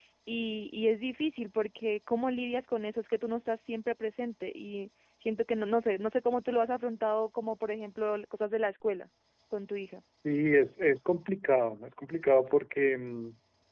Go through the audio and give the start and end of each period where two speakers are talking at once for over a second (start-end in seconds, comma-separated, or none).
none